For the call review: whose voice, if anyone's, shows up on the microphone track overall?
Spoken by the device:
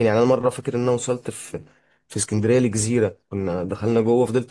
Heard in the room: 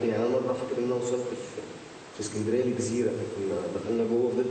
echo only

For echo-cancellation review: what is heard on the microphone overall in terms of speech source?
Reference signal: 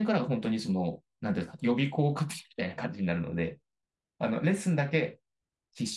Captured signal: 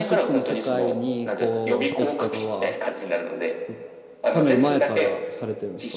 both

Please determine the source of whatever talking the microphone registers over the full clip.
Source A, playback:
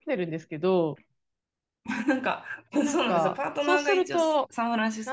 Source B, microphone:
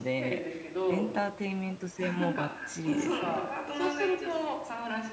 both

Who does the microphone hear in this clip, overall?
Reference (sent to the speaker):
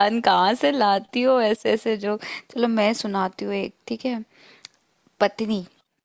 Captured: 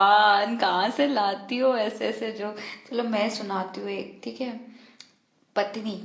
echo only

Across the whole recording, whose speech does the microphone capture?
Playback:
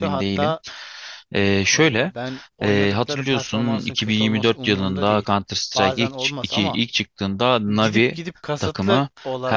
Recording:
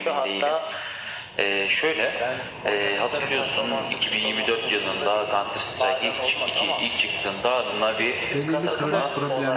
both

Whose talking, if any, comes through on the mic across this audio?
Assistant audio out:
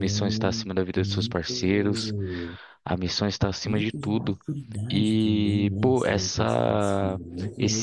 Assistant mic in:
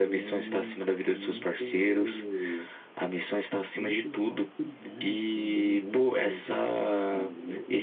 echo only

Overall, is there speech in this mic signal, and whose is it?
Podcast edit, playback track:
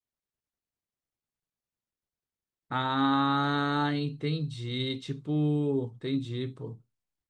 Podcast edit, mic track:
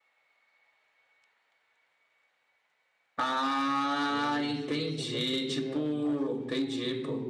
both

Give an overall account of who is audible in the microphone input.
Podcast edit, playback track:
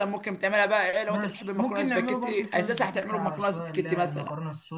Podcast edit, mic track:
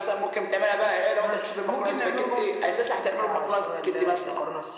echo only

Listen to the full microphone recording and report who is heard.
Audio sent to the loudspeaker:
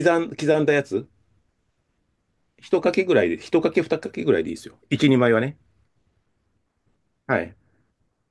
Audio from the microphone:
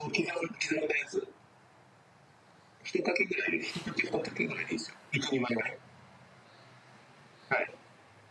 echo only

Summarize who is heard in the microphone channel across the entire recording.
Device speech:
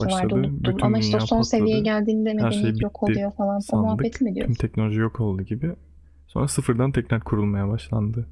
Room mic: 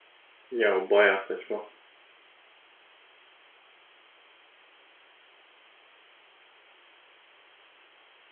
user only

